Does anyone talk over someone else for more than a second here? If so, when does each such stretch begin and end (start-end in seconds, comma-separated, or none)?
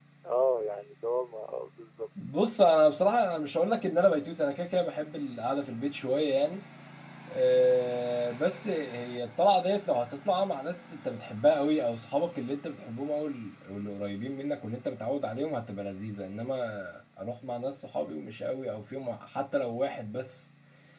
none